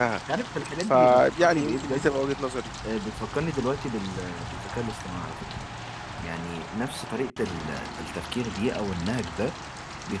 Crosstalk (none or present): present